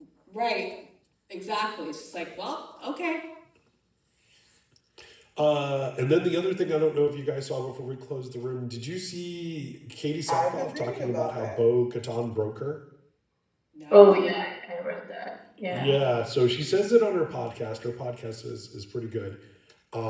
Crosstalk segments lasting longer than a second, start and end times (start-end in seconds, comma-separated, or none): 10.3-11.6